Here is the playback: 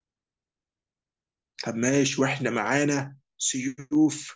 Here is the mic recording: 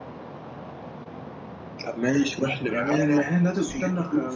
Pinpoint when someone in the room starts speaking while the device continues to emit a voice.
2.6 s

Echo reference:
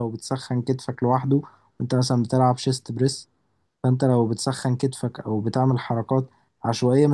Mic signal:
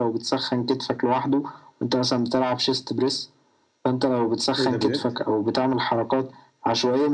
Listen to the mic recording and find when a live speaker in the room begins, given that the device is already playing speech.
4.6 s

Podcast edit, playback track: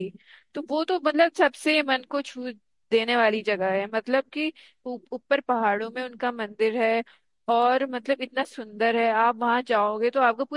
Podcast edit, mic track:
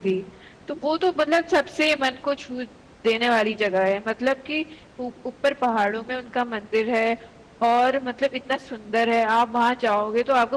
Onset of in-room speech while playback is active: none

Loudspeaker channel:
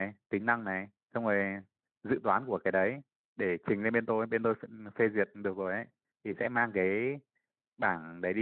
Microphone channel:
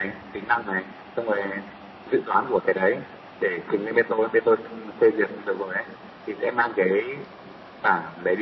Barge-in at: none

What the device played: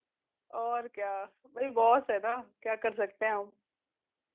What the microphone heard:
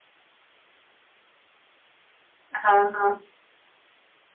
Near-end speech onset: 2.5 s

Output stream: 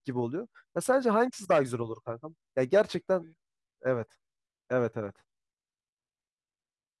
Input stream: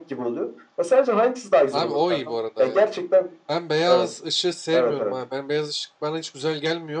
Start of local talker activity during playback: 1.7 s

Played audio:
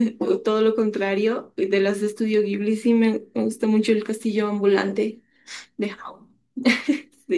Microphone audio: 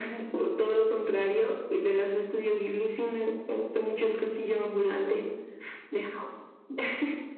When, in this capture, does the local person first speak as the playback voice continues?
none

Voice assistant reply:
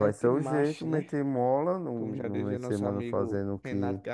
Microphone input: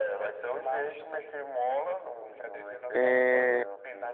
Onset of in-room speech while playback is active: 2.9 s

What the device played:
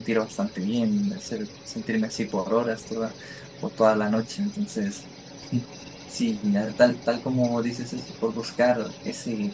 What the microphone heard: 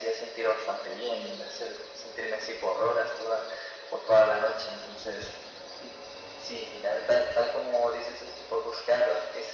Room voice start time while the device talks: none

